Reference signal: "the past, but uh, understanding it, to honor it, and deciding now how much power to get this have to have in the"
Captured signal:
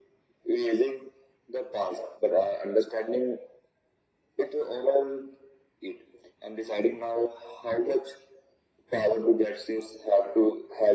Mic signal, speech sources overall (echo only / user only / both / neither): echo only